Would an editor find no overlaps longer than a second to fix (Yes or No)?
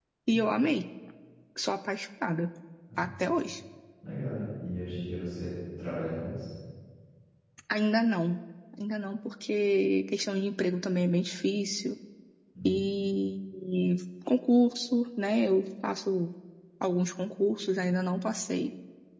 Yes